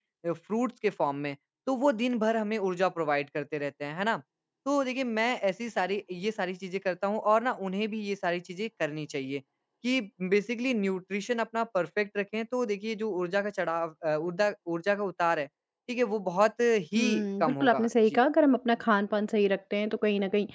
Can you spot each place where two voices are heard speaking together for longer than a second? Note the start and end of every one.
17.0-18.2

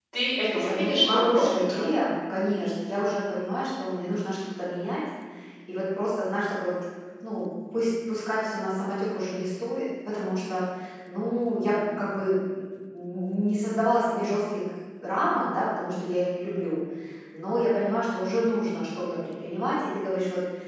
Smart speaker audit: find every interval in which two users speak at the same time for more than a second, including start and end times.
0.5-2.0

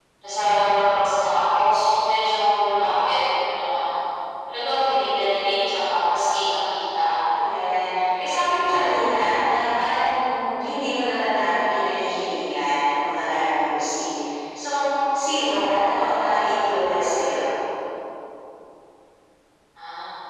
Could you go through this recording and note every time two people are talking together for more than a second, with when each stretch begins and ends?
none

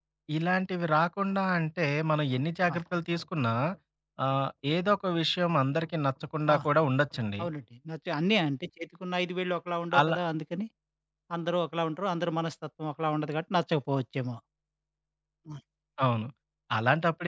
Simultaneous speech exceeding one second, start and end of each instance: none

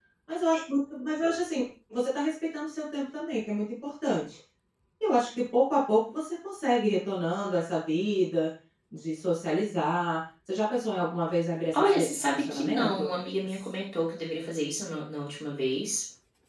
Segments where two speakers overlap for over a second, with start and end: 11.7-13.1

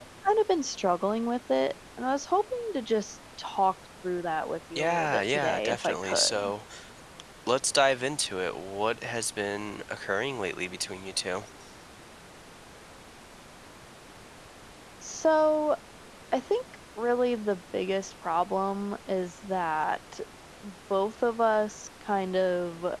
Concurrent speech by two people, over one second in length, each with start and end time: 4.8-6.4

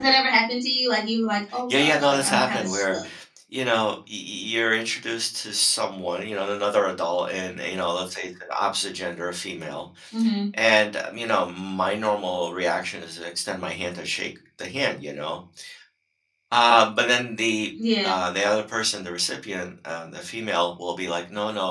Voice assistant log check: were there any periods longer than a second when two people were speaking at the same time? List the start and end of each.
1.7-3.0

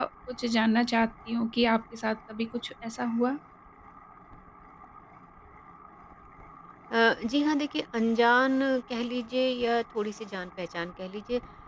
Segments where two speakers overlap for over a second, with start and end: none

